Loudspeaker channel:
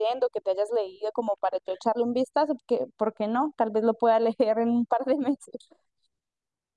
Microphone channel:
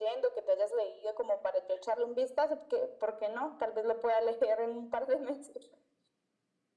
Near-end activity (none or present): none